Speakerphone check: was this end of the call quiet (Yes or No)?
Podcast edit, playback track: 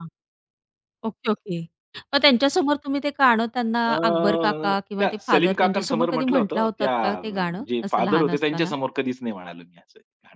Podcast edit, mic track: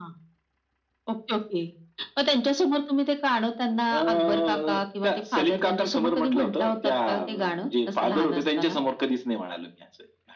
Yes